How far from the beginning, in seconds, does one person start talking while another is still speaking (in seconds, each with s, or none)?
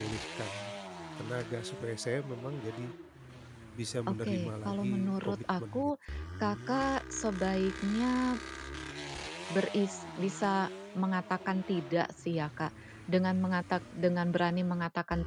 4.1 s